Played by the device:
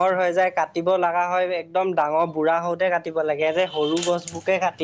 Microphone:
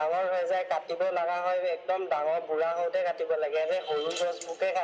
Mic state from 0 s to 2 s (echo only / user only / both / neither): echo only